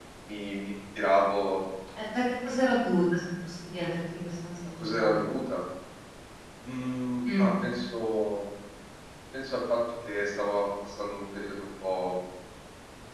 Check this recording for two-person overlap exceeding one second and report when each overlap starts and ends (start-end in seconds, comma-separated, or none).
none